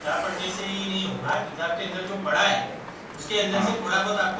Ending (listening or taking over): listening